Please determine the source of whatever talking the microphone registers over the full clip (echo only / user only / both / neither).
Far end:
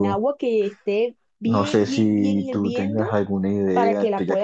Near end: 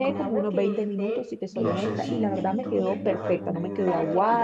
both